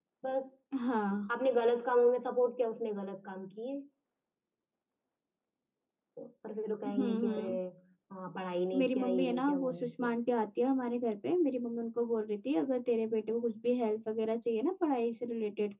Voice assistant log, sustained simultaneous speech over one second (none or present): present